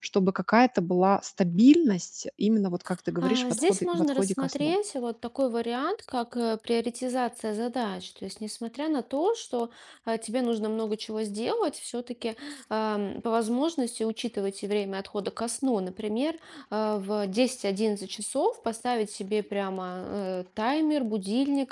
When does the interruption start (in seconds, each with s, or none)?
3.2 s